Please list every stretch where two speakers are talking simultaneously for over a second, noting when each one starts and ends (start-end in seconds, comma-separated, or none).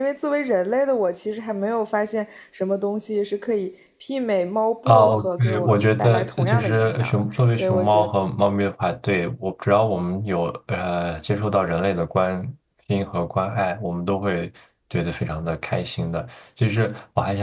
4.9-7.2